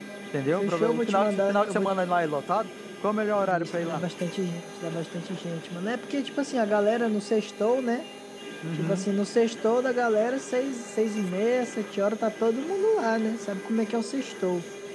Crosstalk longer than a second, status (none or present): present